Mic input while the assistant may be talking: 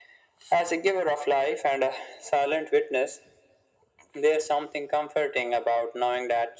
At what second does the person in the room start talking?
none

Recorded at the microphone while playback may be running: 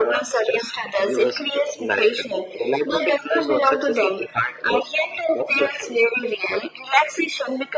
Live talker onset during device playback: none

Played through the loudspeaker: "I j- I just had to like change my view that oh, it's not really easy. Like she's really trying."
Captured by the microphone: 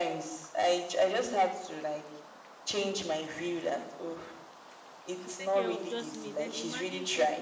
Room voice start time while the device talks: 5 s

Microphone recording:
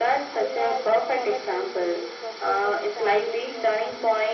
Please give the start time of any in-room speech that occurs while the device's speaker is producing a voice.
none

